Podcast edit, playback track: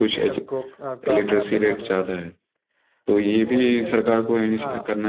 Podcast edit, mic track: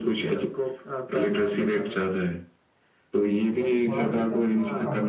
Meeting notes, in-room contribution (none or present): present